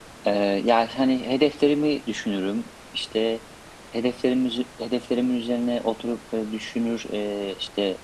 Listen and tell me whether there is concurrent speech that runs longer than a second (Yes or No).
No